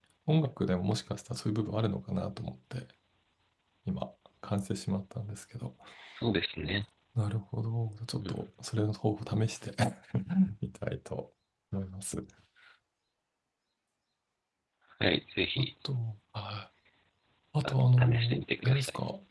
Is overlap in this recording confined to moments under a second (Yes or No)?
No